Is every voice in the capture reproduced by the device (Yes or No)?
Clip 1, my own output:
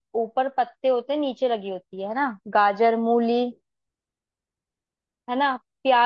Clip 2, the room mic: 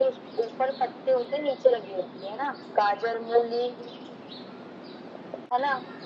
Yes